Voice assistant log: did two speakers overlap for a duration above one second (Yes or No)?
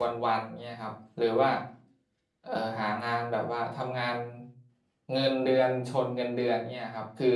No